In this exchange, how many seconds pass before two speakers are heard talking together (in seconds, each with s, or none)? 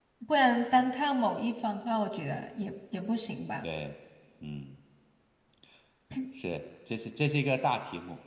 none